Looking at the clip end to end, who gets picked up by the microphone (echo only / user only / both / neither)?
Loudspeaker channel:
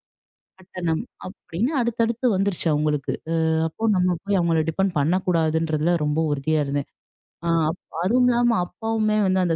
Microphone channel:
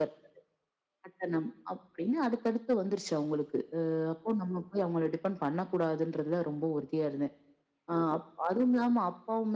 echo only